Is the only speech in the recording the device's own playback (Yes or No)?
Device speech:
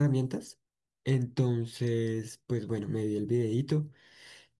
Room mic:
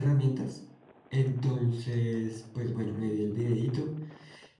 Yes